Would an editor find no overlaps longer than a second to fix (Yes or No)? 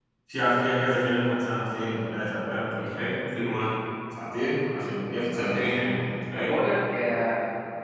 Yes